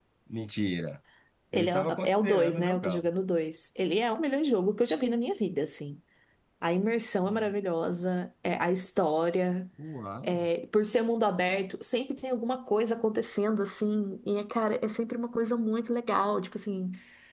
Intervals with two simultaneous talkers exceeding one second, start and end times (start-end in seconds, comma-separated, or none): 1.5-3.1